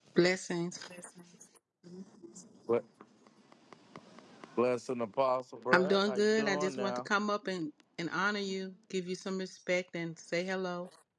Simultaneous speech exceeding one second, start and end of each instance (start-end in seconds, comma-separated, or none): 5.7-7.1